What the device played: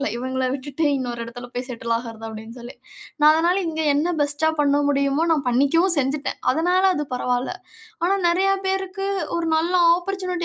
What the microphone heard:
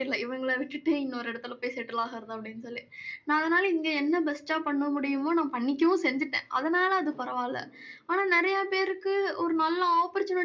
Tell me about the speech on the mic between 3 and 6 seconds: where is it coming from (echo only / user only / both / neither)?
echo only